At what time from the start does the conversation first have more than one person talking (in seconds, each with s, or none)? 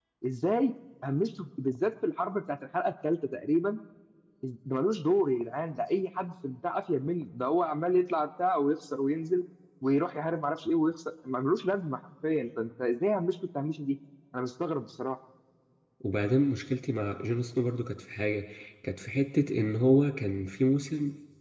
none